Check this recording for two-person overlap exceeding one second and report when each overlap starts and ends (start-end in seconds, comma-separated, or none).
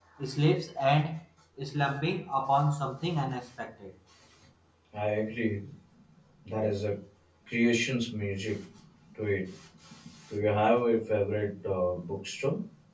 none